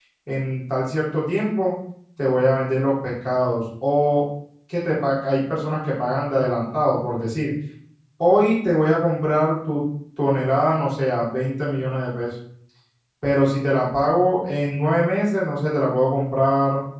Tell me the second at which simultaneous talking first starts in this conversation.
none

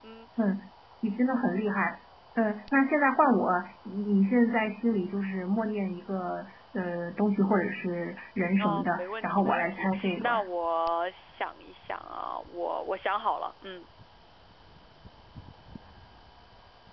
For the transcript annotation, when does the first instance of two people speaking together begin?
8.6 s

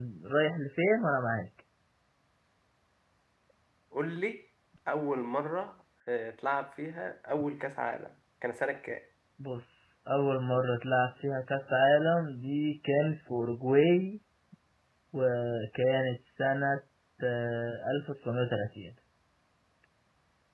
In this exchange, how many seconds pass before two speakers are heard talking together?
none

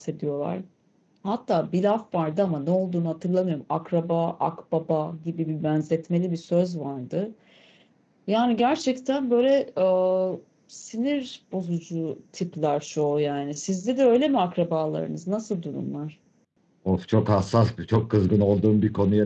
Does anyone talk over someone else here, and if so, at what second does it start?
none

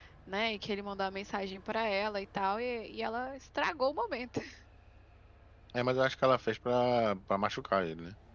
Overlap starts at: none

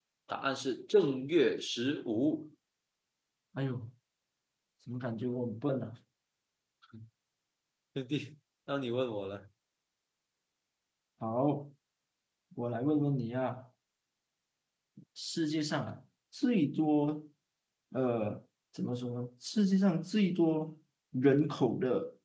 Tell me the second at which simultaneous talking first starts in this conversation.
none

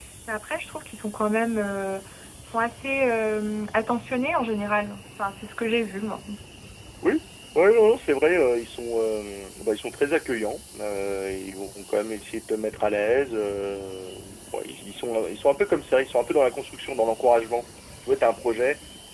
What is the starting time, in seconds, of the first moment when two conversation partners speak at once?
none

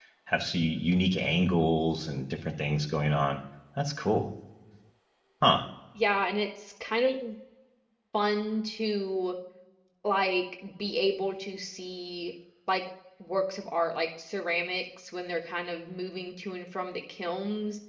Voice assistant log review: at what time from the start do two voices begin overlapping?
none

